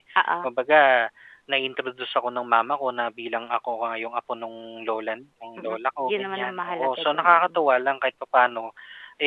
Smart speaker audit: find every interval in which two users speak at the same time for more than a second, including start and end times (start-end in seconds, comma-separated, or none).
5.6-7.6